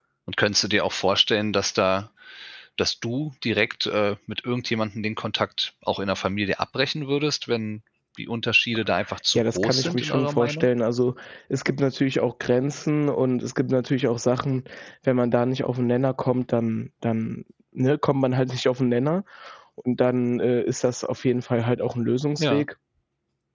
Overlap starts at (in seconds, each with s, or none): 9.3 s